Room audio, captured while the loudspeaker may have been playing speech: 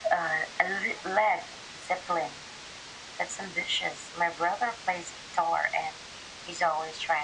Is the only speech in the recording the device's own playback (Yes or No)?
Yes